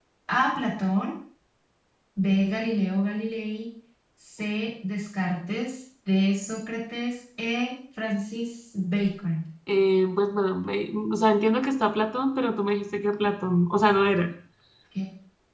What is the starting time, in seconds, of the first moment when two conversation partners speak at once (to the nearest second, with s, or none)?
none